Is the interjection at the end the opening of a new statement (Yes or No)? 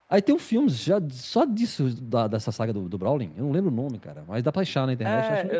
Yes